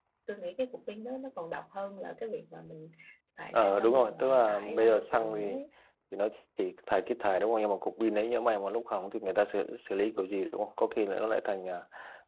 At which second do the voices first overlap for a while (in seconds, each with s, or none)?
3.5 s